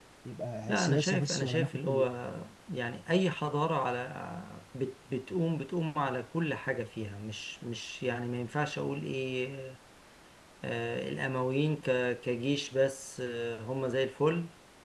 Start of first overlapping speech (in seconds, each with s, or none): 0.7 s